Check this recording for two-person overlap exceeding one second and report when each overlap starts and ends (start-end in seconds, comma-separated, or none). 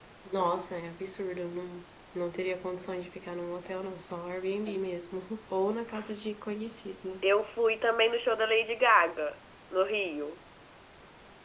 none